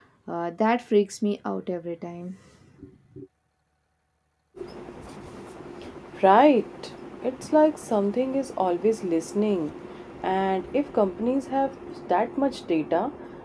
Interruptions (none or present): none